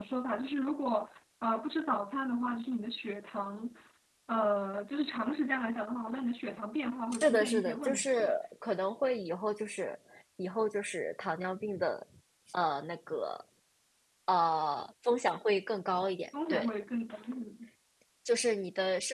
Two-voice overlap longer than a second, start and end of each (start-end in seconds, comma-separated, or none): 7.1-8.3